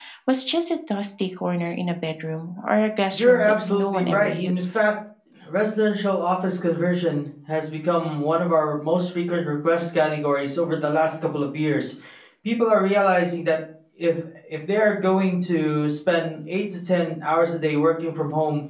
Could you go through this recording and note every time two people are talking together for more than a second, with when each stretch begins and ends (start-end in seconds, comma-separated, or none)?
3.1-4.6